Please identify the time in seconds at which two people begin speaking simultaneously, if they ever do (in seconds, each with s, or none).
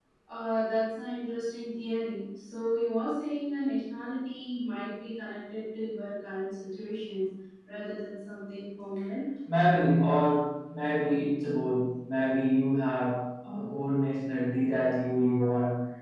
none